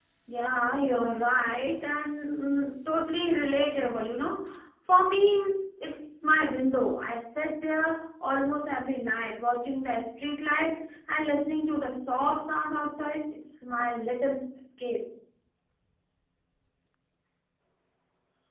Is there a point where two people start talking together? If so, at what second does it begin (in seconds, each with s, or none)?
none